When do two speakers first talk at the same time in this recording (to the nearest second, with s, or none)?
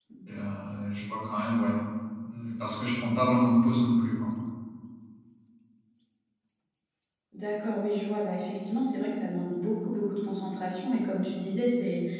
none